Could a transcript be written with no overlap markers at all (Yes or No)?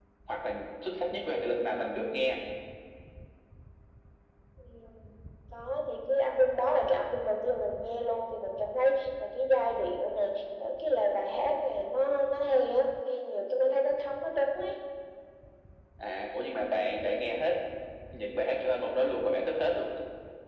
Yes